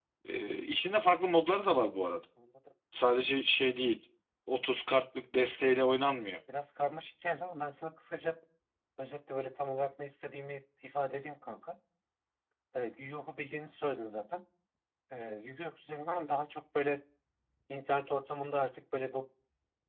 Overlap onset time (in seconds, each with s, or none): none